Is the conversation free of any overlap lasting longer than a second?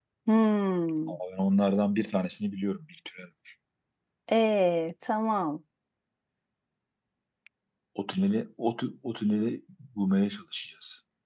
Yes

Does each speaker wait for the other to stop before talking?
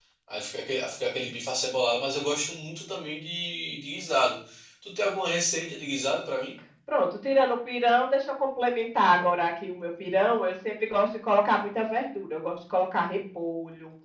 Yes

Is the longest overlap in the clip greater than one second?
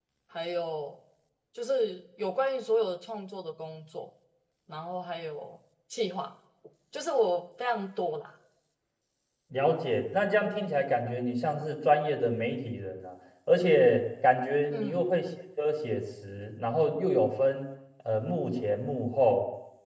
No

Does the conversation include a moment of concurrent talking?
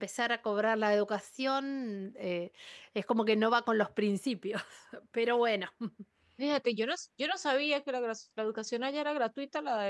No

